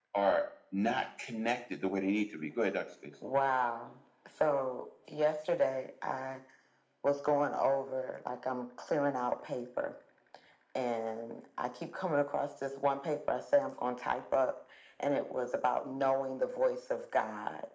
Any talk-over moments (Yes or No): No